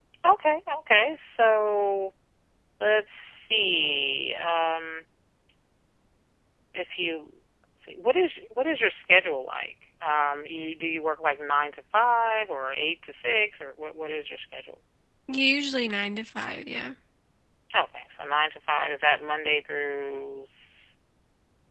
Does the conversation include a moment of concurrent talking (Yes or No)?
No